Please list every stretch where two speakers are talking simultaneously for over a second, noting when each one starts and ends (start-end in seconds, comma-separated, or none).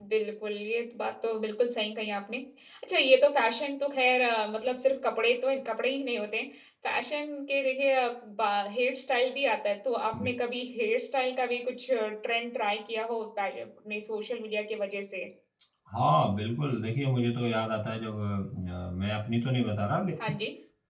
none